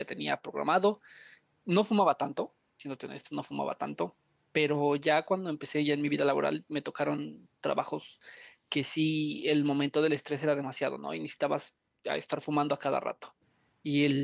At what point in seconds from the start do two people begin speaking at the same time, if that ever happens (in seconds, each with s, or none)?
none